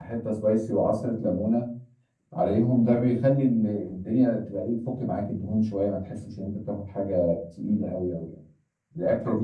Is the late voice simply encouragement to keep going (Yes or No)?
Yes